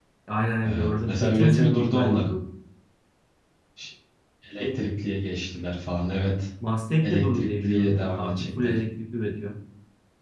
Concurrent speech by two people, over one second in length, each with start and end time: 0.6-2.3, 7.0-8.7

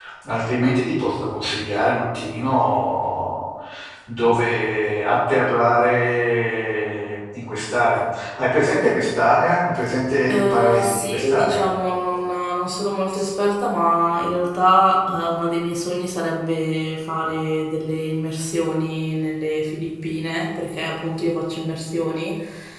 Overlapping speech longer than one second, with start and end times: 10.2-11.7

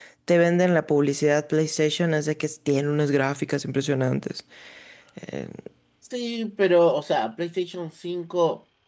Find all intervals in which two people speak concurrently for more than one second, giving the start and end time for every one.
none

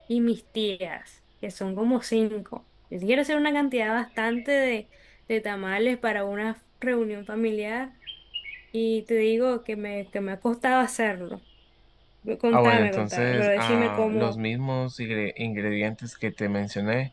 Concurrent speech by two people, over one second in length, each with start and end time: 12.5-14.3

